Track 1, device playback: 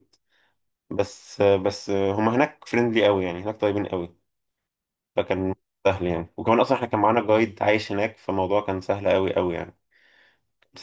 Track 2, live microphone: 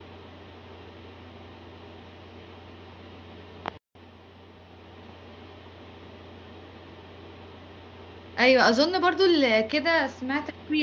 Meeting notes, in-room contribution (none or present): present